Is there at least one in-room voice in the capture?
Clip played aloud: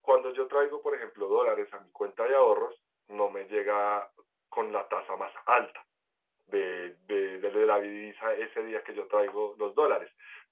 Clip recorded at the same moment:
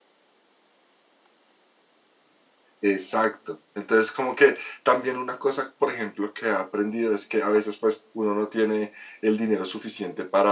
Yes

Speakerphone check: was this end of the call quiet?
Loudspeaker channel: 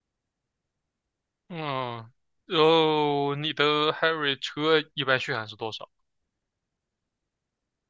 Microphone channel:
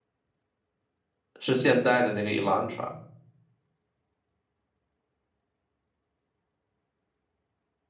No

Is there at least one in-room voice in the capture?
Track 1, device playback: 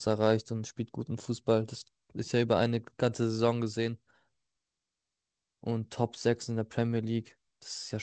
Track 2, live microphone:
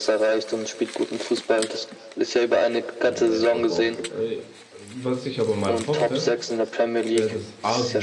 Yes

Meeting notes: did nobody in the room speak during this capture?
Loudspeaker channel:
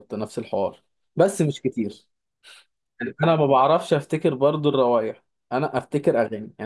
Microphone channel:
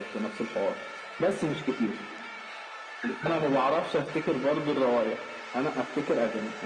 Yes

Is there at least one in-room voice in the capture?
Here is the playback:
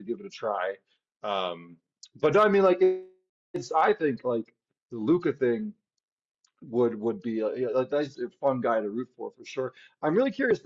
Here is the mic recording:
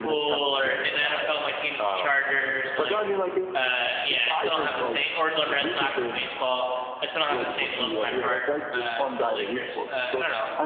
Yes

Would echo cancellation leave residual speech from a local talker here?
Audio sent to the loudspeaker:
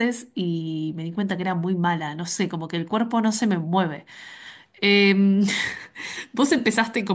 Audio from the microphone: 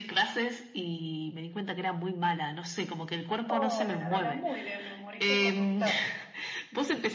Yes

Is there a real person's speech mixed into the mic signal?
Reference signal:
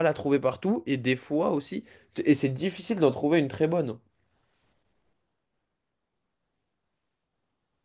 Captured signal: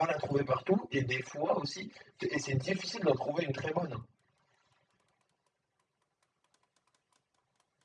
No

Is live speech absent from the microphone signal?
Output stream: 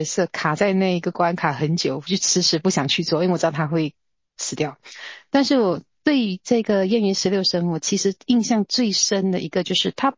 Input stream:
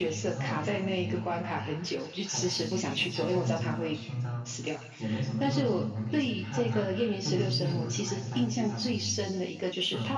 No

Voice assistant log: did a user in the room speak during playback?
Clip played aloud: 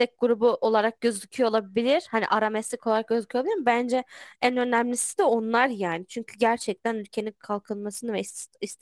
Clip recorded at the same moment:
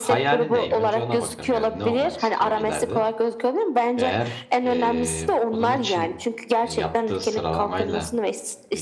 Yes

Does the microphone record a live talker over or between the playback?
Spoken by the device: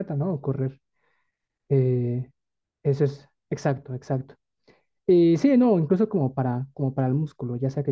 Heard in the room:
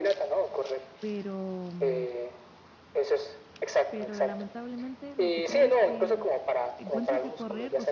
Yes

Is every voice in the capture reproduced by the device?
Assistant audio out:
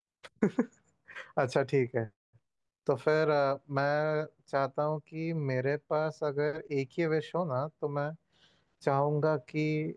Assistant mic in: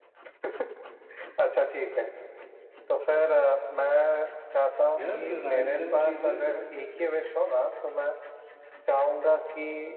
No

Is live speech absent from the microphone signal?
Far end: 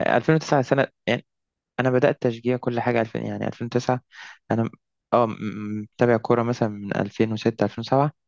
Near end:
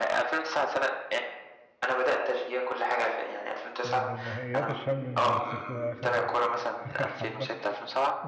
No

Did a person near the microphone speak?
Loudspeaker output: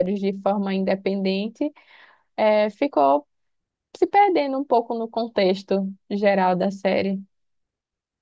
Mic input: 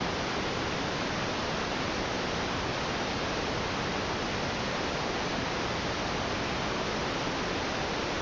No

